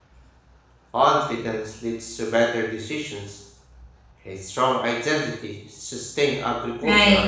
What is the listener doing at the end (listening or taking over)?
taking over